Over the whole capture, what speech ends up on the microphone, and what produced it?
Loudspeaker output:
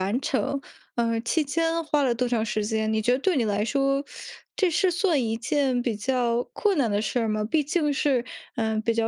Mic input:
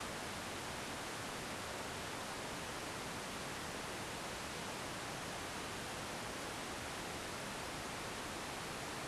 neither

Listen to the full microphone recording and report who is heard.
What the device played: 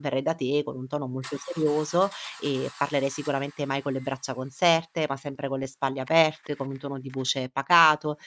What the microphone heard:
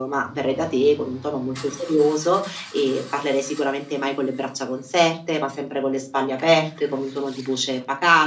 echo only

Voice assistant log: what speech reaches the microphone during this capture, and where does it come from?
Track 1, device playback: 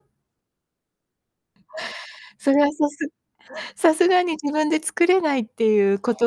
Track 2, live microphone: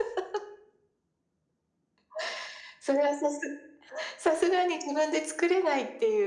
echo only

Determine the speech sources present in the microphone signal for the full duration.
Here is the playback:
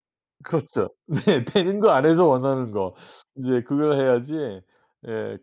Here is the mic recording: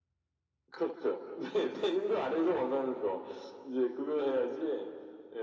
echo only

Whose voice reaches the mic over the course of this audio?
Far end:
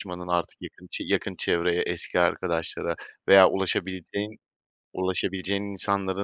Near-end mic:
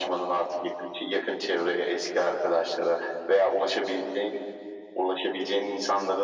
echo only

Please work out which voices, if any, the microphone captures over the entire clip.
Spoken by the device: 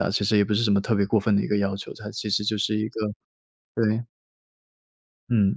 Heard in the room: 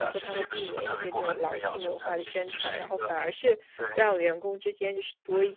both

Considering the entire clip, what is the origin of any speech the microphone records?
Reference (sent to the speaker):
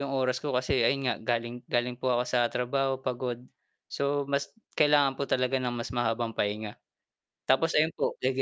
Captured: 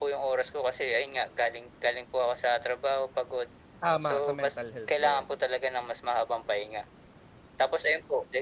both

